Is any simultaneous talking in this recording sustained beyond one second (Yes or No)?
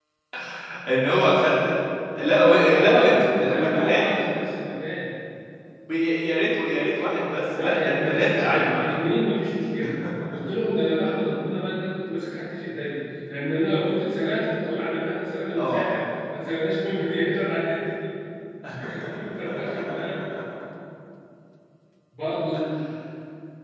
Yes